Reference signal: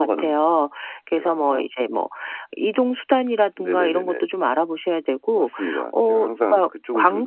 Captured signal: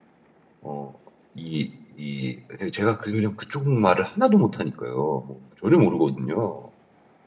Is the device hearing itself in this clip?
No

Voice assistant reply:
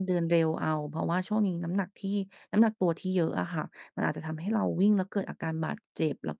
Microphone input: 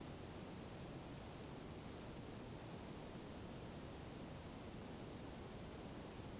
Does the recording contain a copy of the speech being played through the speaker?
No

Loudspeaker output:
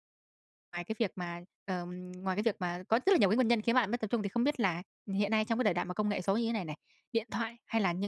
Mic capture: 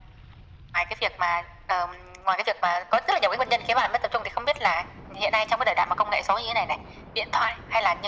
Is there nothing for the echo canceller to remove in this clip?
No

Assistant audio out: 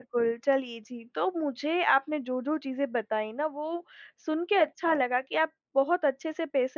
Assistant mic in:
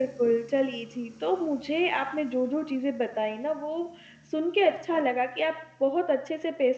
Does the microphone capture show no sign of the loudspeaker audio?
No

